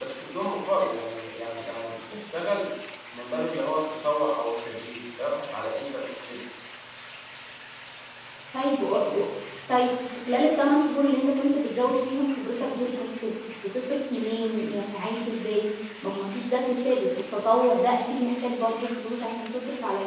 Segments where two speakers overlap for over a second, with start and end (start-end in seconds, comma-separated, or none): none